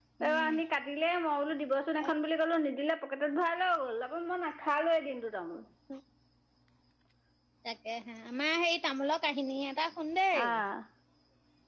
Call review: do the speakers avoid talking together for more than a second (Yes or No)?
Yes